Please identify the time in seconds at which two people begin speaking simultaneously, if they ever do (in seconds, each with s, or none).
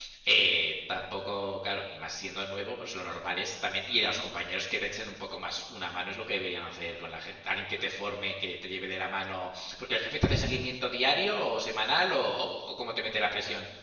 none